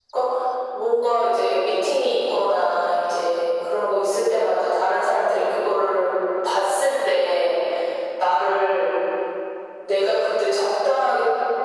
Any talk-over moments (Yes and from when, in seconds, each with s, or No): No